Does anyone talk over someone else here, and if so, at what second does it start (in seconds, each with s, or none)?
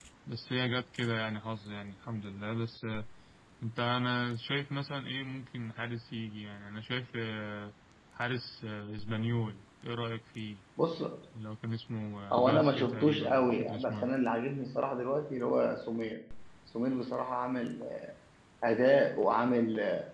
12.3 s